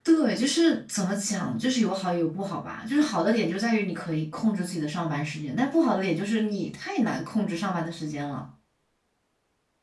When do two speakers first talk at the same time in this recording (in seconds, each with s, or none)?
none